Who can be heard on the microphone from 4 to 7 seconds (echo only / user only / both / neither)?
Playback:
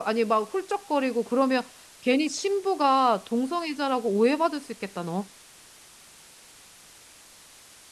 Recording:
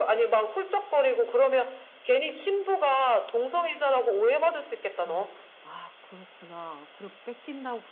both